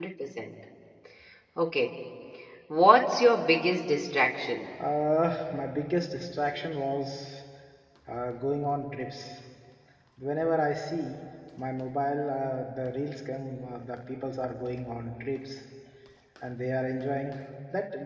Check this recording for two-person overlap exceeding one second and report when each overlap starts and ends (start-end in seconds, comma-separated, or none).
none